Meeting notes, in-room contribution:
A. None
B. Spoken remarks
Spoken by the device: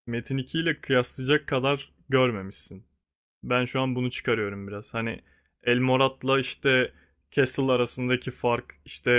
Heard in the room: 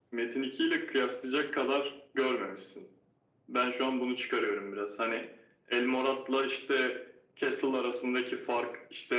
A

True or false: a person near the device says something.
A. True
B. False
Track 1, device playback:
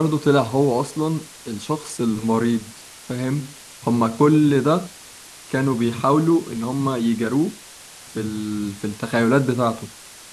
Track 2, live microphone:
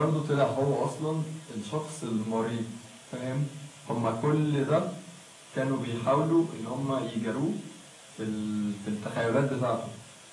B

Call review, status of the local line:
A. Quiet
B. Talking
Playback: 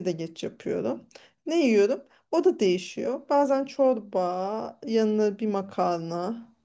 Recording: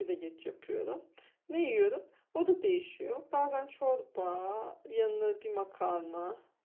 A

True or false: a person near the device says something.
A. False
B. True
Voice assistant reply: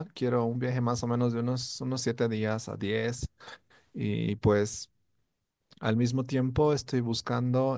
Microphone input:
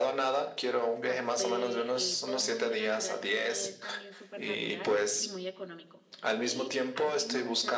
B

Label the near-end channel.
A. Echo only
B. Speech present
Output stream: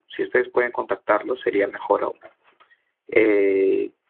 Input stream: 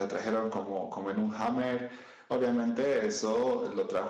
B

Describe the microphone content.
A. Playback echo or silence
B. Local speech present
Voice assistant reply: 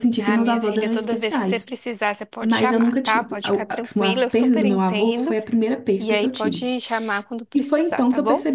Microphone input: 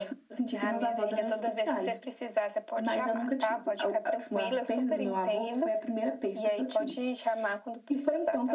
A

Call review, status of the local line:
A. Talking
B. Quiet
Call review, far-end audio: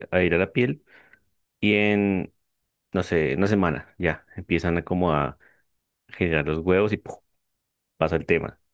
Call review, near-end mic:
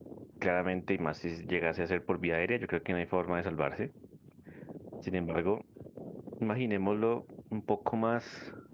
A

